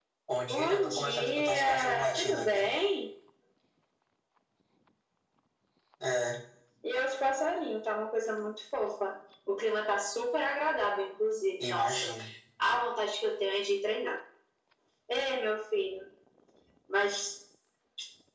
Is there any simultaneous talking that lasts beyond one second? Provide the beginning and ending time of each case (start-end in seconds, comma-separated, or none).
0.5-2.7